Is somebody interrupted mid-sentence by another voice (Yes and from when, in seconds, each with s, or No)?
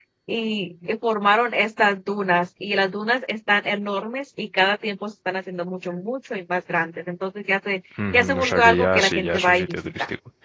Yes, from 8.0 s